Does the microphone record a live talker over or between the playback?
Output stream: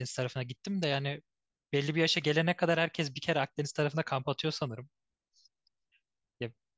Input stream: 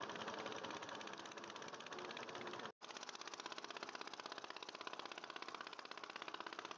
No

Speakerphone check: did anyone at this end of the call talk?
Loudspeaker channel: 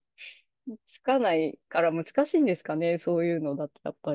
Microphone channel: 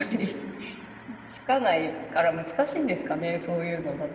No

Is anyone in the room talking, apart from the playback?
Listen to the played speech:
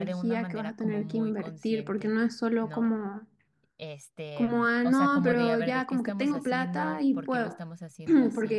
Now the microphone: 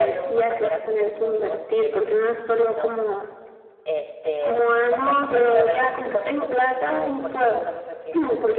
No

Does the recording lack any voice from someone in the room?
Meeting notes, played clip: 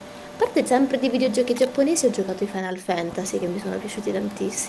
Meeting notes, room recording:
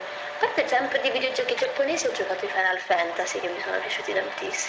Yes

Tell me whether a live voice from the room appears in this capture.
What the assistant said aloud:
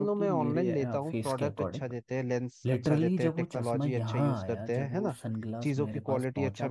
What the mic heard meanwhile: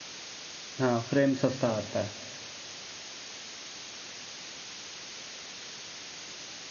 Yes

